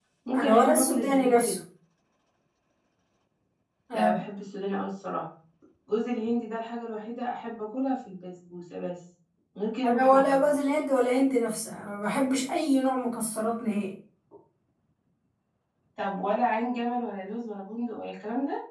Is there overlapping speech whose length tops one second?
Yes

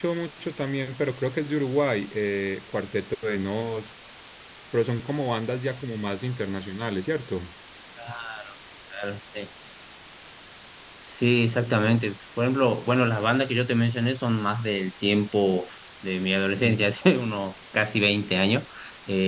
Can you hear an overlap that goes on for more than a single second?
No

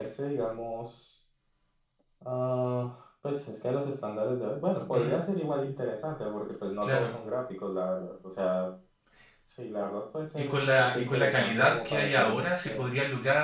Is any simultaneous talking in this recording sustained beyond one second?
Yes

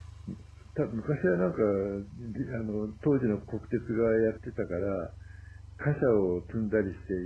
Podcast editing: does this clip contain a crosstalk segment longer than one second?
No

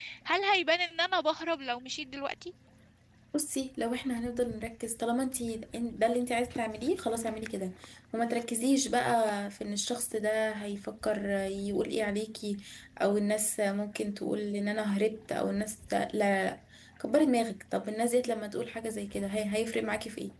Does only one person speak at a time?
Yes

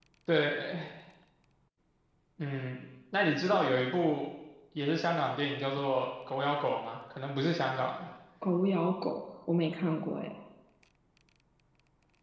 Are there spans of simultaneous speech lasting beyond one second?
No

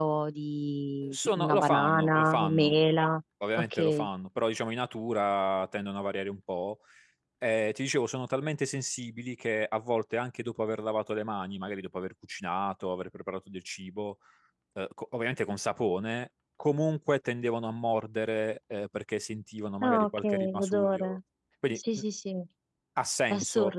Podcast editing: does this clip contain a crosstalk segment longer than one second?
Yes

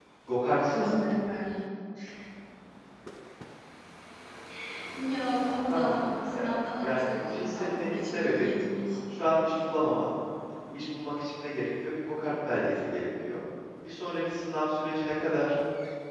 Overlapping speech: Yes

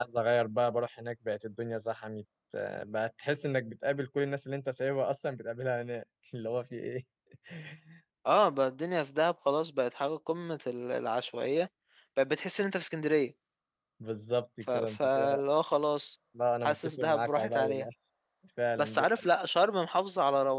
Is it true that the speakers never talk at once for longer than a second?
No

